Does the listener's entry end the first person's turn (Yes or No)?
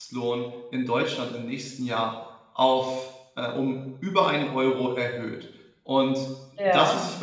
No